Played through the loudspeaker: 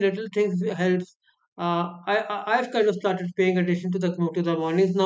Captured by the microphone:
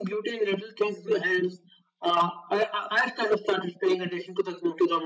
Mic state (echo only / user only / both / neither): echo only